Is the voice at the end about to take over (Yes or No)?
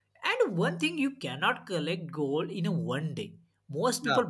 No